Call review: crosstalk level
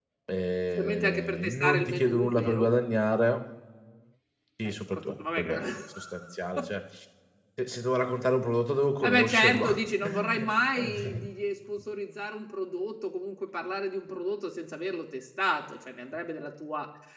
present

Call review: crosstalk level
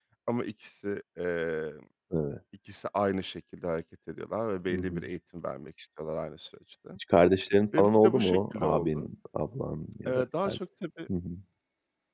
present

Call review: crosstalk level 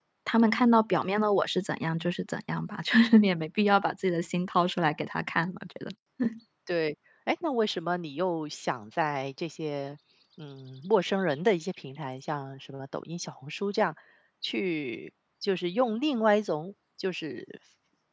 none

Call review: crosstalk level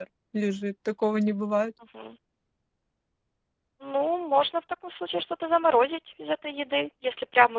none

